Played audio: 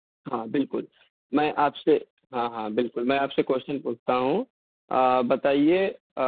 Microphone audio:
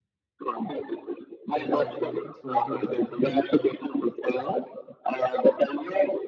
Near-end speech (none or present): present